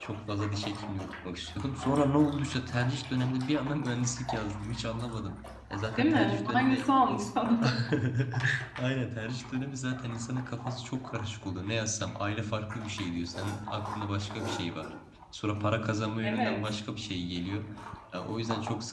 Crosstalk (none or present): present